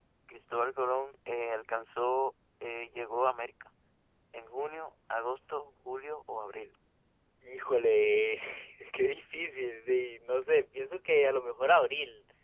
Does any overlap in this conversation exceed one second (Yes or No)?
No